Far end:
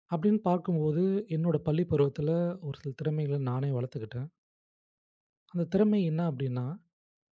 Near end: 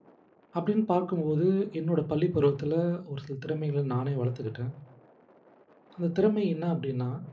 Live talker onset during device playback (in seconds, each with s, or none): none